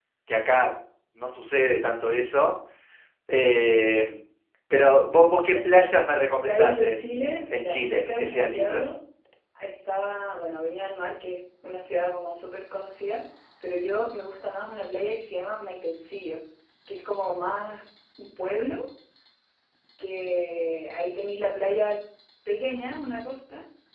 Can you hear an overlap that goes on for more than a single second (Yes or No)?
Yes